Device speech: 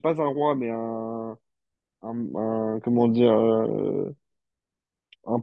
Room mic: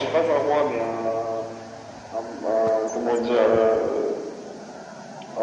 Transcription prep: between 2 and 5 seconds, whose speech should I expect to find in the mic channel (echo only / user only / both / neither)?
echo only